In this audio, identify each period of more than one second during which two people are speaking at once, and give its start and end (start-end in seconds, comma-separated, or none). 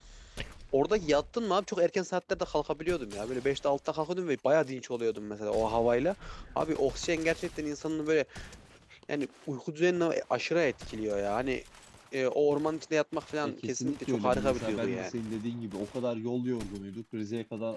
13.4-15.1